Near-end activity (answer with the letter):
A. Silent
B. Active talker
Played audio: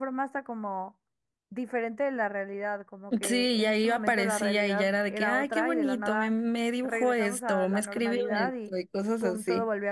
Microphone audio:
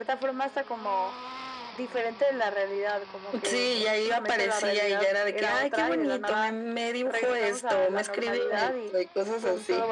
A